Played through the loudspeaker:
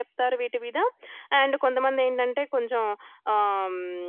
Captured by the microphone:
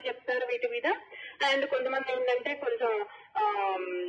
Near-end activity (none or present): none